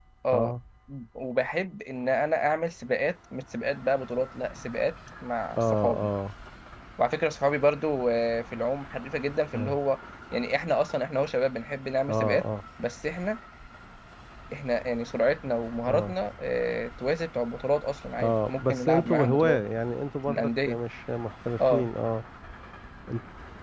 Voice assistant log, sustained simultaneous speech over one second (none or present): present